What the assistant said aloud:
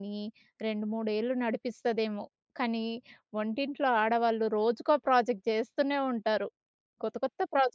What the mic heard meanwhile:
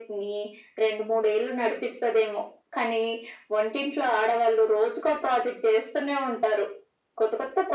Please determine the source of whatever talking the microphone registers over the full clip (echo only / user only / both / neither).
echo only